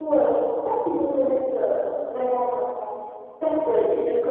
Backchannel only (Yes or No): Yes